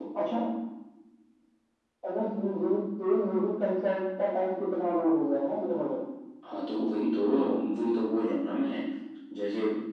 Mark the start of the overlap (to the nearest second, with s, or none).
none